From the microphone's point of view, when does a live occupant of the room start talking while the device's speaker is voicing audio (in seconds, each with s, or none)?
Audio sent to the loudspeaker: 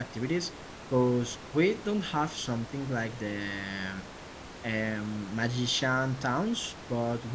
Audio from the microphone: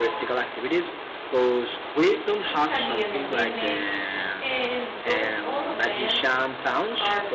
2.4 s